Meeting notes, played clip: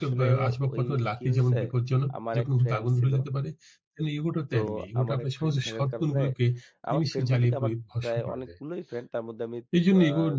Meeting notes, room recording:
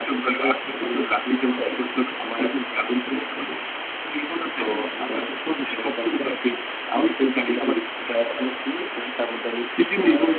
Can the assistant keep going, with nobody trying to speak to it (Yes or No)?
Yes